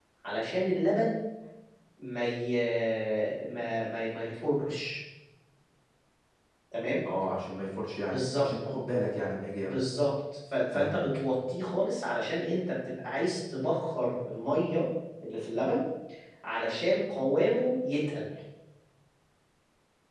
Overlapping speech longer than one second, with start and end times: none

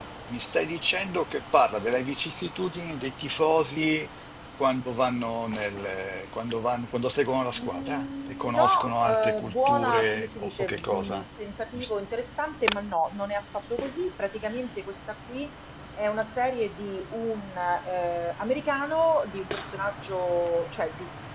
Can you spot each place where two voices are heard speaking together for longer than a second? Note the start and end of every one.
7.5-11.2

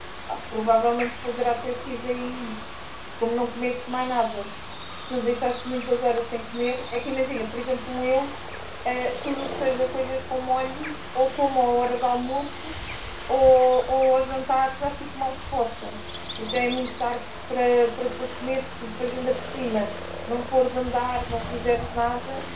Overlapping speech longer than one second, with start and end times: none

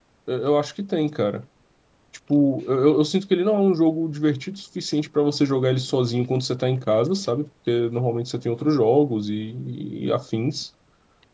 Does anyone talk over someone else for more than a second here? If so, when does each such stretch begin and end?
none

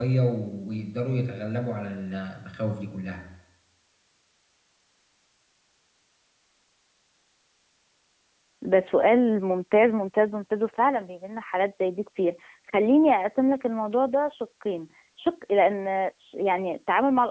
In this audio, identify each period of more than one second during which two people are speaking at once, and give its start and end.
none

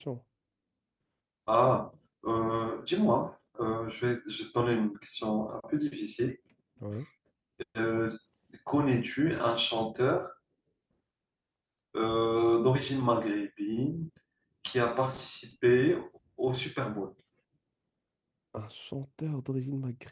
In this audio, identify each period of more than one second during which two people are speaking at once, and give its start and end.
none

